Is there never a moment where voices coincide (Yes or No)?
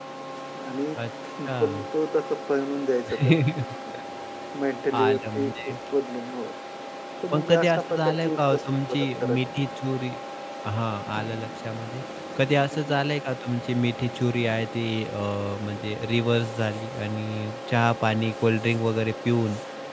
No